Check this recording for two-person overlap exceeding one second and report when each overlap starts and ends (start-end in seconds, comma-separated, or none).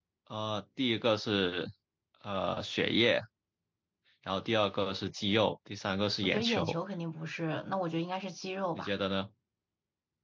none